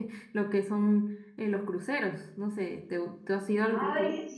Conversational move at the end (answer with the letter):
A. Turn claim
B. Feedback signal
A